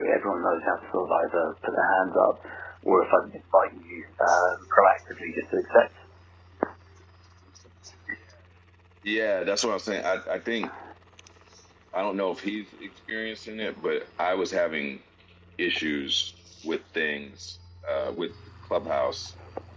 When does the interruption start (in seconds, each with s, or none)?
none